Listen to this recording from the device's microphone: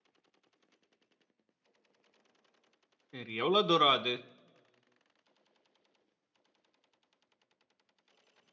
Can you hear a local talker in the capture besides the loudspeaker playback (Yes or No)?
Yes